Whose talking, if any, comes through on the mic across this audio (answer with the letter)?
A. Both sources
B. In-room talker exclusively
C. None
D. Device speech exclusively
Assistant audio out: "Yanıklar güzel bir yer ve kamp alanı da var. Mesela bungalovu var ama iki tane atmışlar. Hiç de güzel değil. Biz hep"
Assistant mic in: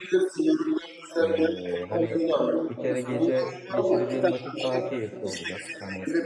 A